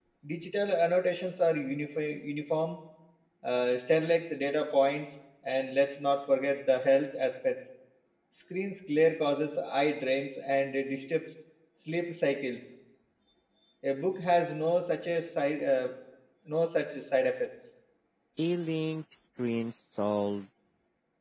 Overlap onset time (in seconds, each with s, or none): none